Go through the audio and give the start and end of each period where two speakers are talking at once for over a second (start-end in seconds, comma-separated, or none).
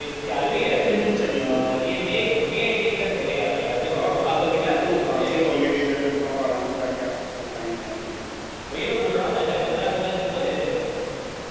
3.9-5.5